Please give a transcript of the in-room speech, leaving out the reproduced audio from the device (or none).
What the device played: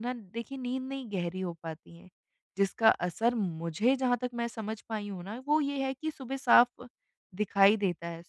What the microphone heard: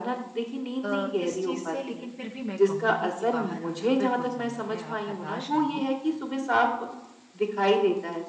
अ, अ, इस चीज़ से लेकिन फिर भी मैं कहूँगी कि बाहर आना बिल्कुल संभव है, आप हताश ना हों।